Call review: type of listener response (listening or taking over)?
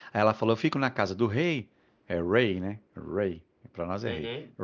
listening